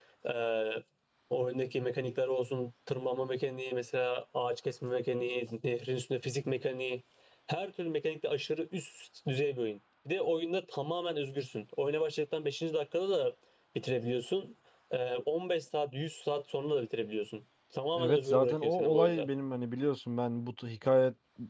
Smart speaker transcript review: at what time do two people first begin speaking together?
17.9 s

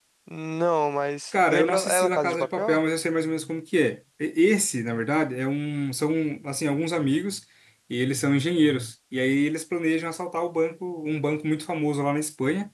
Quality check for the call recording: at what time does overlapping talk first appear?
1.3 s

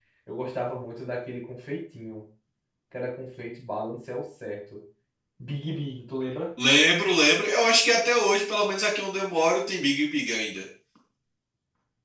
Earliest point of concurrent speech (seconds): none

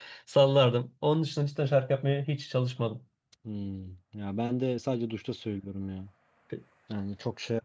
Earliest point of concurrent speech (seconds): none

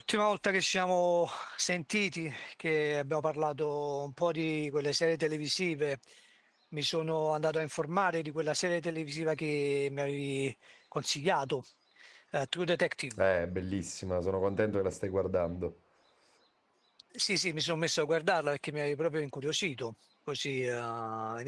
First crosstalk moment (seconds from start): none

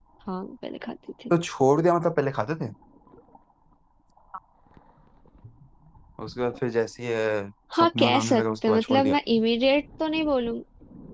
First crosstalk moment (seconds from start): 7.7 s

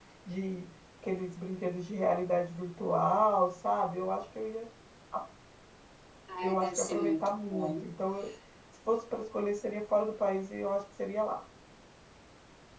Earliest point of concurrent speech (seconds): 6.4 s

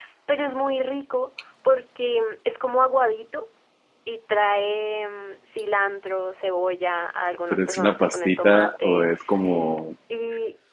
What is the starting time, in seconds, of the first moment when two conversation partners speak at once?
7.5 s

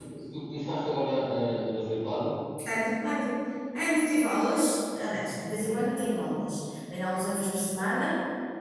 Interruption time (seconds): none

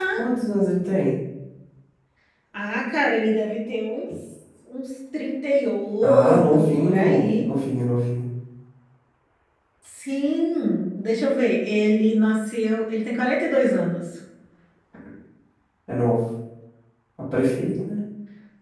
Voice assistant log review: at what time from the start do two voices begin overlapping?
6.0 s

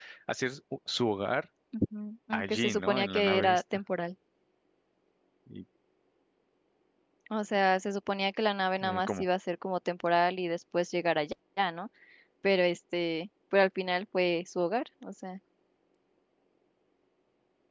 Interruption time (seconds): 2.3 s

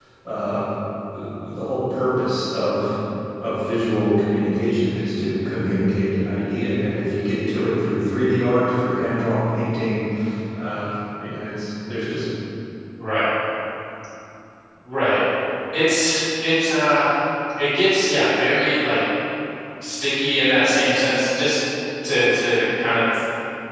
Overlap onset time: none

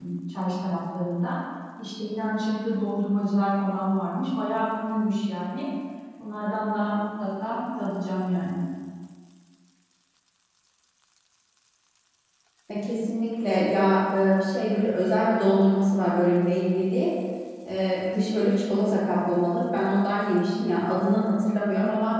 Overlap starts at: none

